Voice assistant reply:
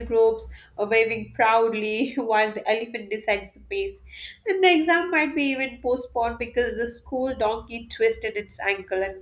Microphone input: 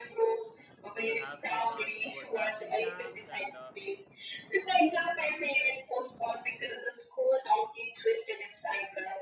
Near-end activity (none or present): present